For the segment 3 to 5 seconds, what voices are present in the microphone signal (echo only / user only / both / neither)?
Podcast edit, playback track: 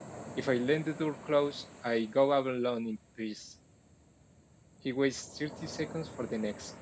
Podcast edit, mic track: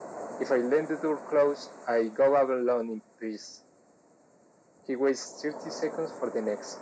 echo only